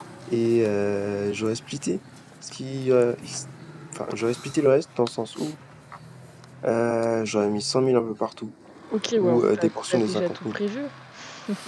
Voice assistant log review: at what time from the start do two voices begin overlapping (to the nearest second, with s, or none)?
9 s